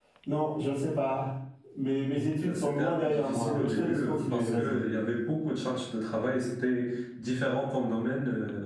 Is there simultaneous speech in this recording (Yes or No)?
Yes